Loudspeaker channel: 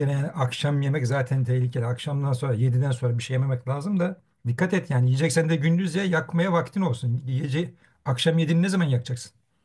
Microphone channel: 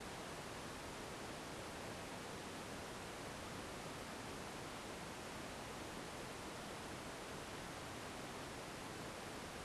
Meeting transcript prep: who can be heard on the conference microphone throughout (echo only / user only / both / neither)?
neither